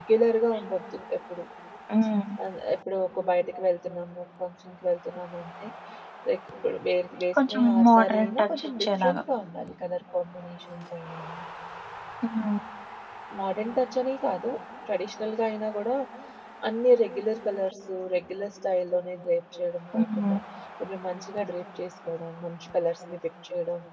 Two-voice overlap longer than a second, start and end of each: 7.5-9.2

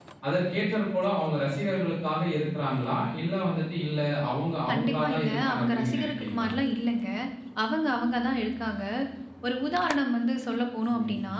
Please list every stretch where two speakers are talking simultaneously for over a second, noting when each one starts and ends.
4.7-6.5

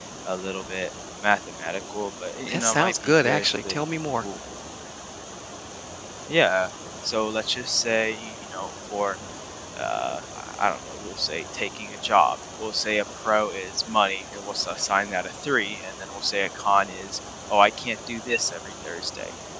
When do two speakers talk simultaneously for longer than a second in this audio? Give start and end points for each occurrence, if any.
2.5-3.8

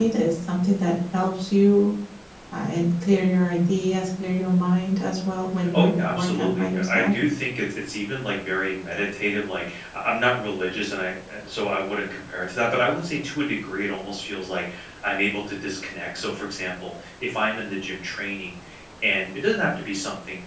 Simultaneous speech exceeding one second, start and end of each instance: 5.7-7.1

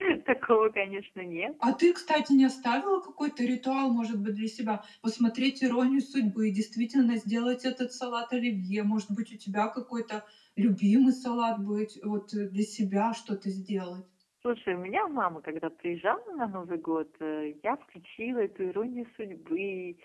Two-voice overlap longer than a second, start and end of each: none

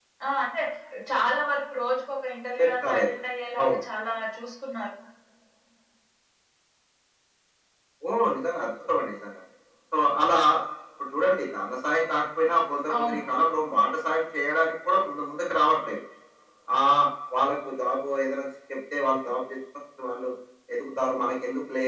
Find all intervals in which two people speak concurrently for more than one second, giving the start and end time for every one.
none

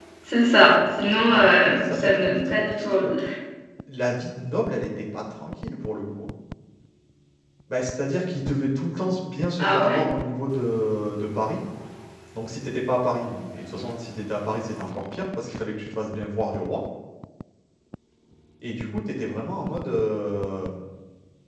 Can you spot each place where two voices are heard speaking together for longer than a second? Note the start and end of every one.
1.3-3.1

